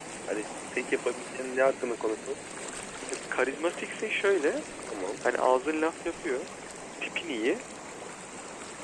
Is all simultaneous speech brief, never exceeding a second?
Yes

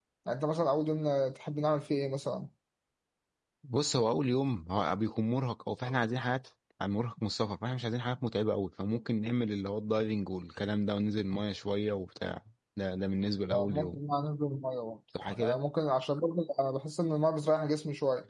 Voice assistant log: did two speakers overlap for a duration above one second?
No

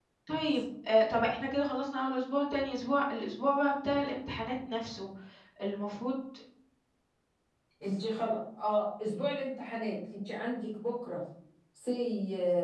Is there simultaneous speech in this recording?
No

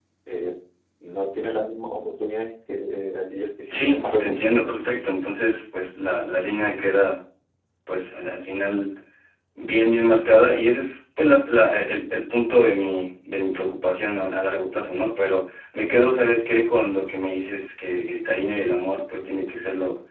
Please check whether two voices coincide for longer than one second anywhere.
Yes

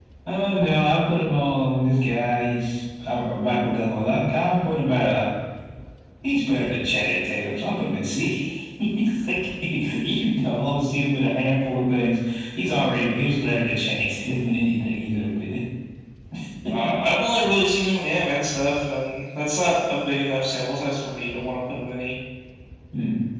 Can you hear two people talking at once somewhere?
No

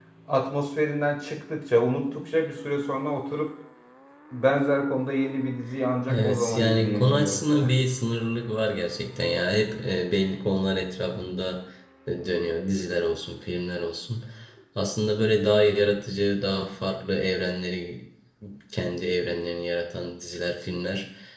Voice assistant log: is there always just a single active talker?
No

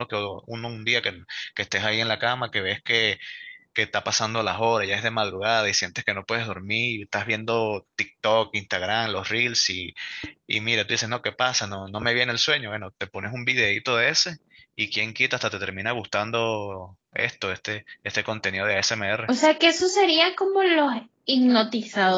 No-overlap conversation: Yes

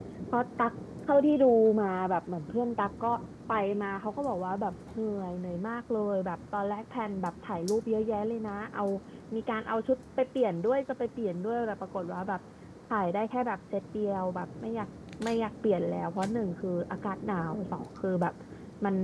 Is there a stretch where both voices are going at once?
No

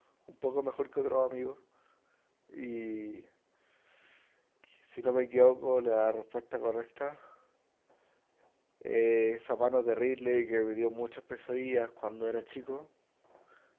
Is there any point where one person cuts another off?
No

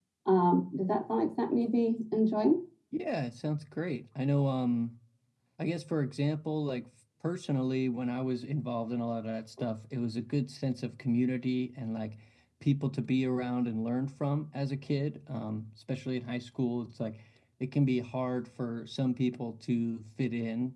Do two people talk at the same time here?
No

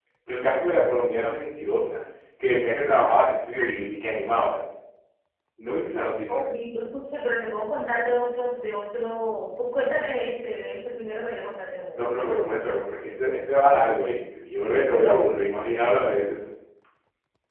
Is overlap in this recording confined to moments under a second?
Yes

